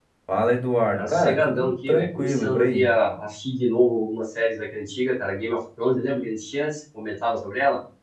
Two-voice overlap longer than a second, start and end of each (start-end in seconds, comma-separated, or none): 0.9-2.9